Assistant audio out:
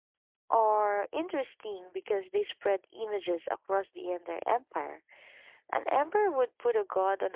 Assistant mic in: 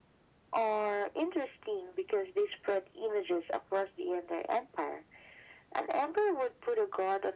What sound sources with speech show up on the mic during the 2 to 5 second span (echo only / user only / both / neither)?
echo only